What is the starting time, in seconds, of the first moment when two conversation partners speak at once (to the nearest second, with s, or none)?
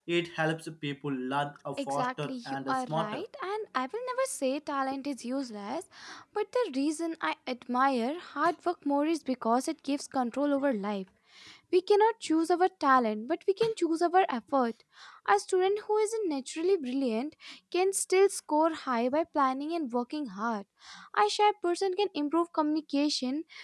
2 s